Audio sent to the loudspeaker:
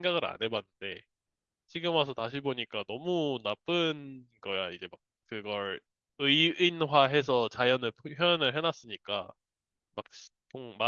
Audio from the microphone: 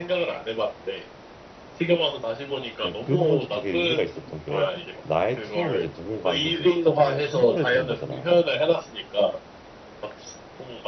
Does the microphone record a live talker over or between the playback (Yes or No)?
Yes